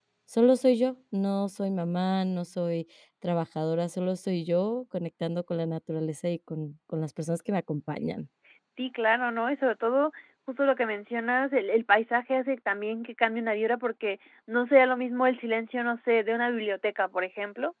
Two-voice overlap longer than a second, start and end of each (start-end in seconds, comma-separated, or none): none